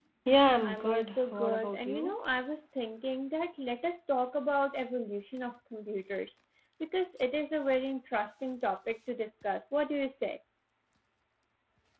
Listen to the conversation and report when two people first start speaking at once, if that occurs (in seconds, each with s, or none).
0.6 s